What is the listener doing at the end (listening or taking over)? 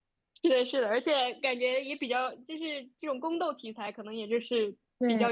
listening